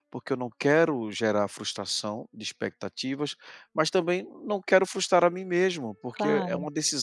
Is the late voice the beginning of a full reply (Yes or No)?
No